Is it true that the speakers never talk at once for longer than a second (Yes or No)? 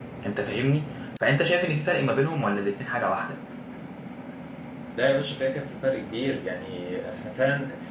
Yes